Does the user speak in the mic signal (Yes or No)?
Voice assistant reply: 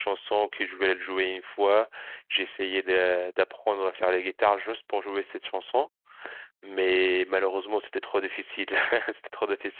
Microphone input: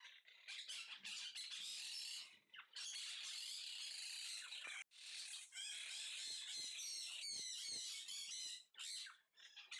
No